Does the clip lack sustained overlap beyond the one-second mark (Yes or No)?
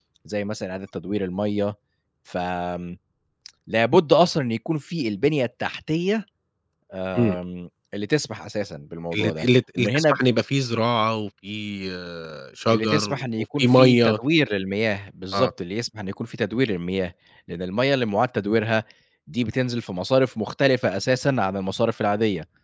No